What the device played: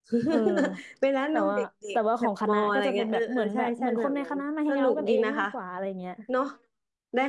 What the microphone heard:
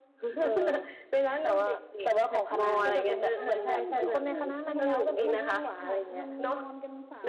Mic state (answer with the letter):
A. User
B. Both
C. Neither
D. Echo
B